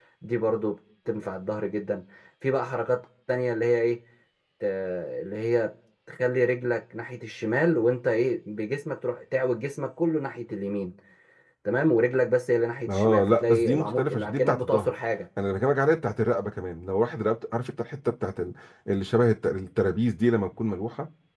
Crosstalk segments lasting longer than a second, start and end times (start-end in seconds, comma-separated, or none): 12.9-14.9